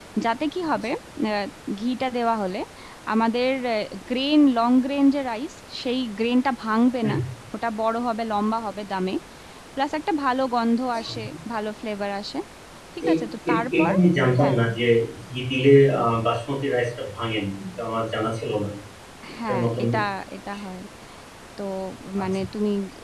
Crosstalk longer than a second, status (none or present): none